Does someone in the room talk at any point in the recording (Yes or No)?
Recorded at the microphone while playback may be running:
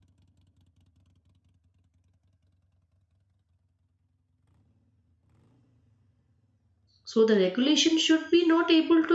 Yes